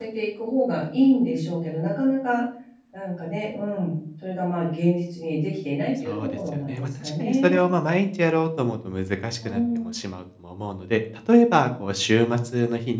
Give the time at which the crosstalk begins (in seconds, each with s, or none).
6.0 s